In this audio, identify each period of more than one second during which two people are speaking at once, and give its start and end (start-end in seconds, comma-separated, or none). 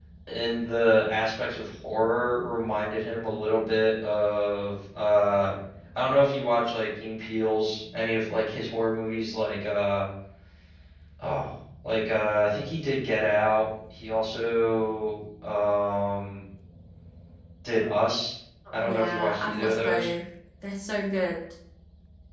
18.8-20.1